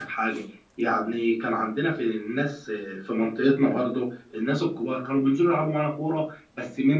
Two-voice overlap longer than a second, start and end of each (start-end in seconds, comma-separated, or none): none